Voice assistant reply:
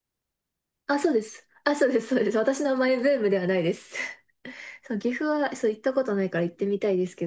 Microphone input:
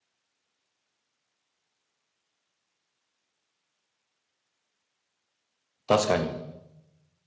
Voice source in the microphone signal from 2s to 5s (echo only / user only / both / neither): neither